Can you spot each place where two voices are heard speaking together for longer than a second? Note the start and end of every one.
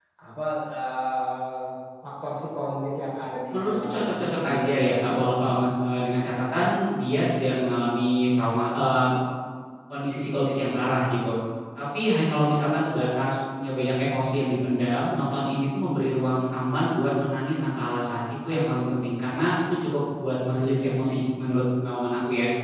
3.5-5.6

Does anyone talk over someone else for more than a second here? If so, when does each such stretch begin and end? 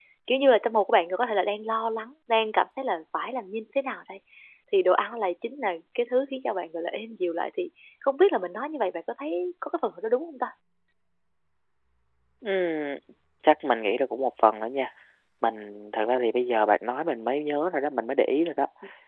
none

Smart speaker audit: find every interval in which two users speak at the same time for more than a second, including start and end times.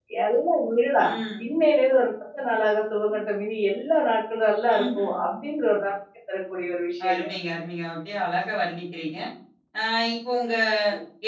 none

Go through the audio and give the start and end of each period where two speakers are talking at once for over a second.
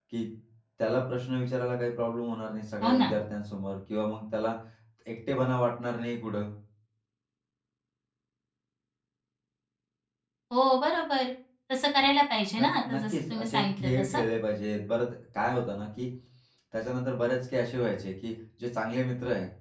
12.6-14.2

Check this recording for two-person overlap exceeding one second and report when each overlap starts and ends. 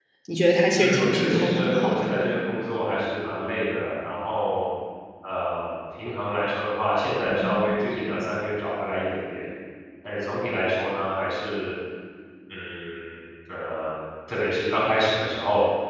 0.8-2.2

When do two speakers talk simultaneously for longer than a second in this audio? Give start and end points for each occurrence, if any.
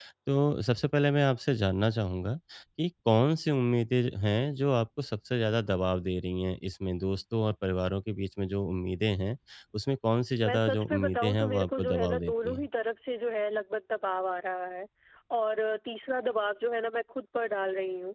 10.4-12.7

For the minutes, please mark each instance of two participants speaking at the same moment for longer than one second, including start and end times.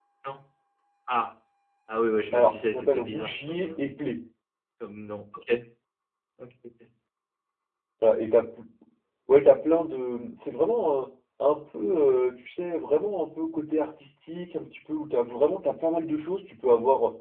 2.3-3.8

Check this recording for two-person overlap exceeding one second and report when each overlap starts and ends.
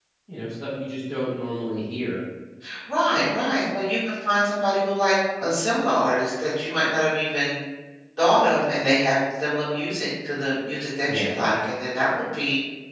none

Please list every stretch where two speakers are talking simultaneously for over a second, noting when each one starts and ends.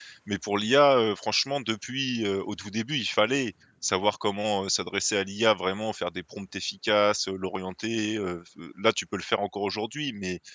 none

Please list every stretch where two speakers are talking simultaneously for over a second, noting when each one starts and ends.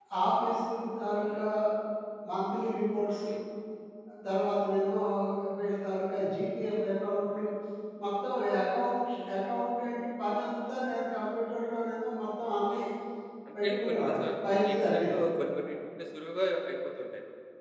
13.6-15.2

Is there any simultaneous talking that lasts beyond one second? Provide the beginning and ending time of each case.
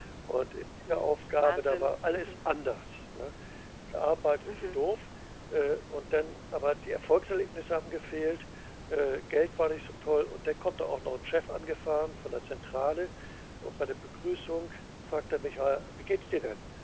0.9-2.3

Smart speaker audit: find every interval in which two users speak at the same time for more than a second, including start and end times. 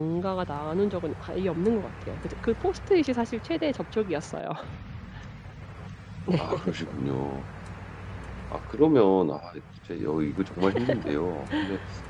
none

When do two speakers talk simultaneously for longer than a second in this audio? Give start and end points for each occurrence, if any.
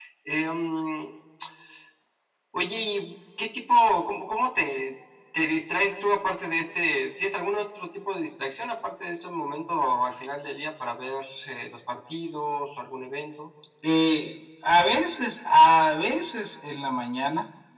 none

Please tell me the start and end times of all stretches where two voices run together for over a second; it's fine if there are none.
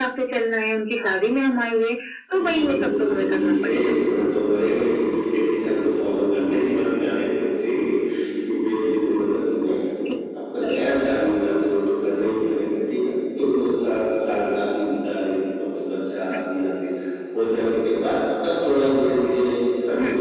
2.4-3.9

